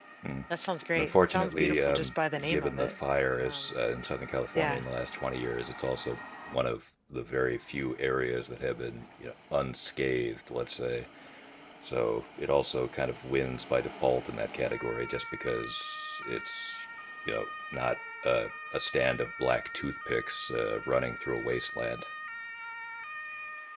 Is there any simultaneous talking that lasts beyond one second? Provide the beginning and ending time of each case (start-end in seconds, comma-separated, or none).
0.9-3.0